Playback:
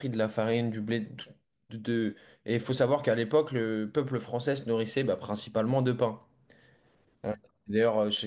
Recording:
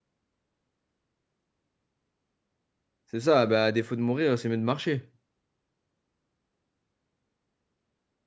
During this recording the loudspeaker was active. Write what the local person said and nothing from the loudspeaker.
C'est ça, bah, à défaut de mourir, c'est mieux de marcher.

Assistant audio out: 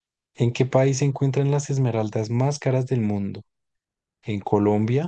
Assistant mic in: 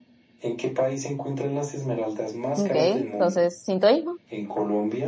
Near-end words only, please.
Ok, entonces, sintoísmo.

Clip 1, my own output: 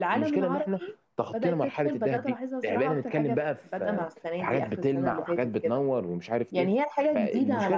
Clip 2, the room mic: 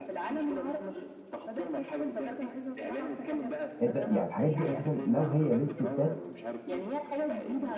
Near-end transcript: انت يعني الحاجات دي اساسا لو هي للستات

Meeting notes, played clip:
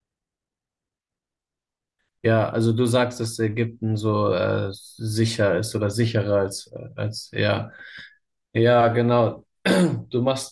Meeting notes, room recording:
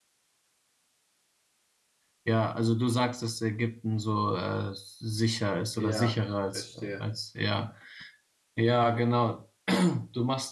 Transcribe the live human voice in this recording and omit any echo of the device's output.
ja, ich verstehe.

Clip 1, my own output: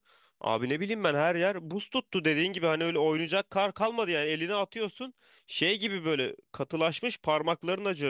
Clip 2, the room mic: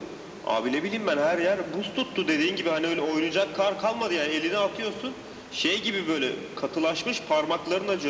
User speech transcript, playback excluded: none

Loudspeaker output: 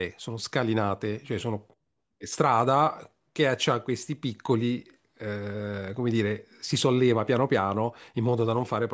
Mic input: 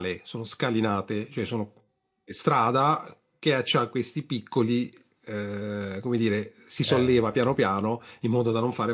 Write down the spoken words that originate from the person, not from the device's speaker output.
ah, ok.

